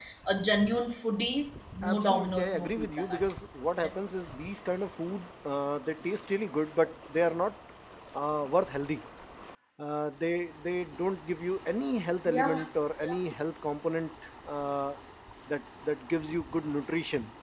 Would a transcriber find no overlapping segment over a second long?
No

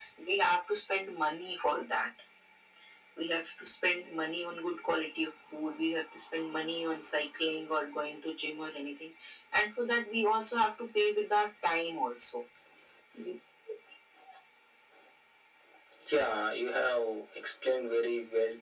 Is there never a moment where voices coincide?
Yes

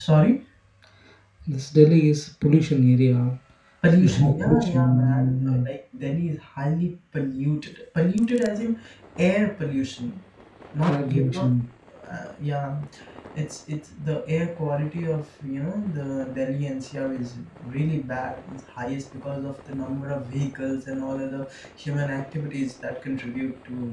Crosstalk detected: Yes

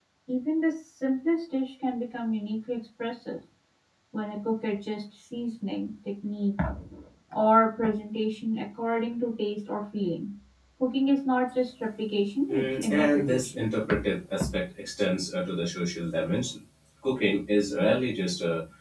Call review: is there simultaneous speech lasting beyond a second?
Yes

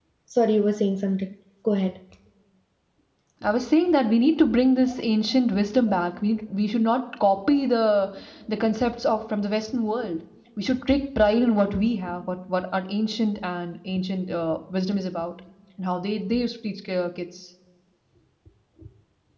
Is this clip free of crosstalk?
Yes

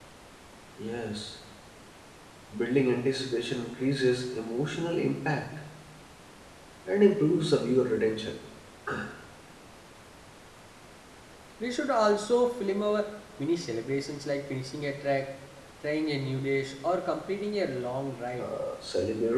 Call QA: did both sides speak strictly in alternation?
Yes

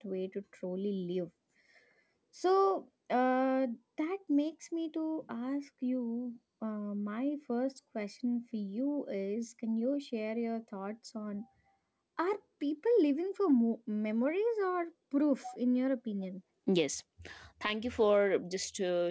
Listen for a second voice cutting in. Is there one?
No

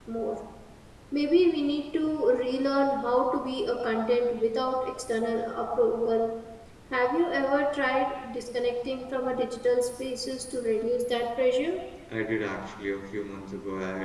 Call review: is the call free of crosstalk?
Yes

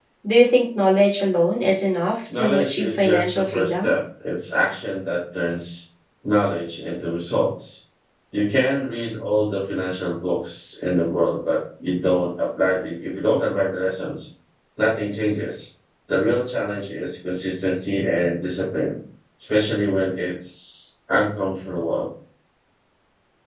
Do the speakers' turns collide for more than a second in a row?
Yes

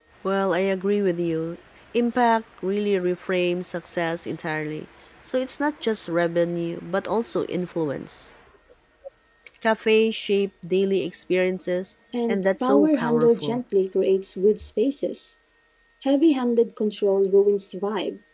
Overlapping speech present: Yes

